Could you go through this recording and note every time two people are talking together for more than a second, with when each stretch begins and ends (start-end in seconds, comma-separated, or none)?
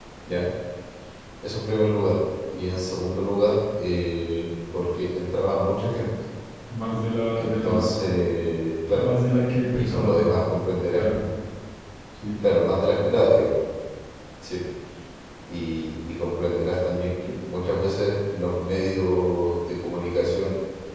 none